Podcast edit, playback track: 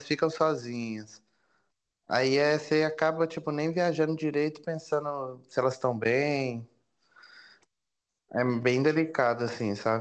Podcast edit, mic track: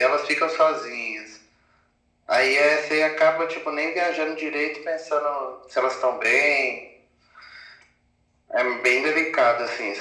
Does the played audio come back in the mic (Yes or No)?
Yes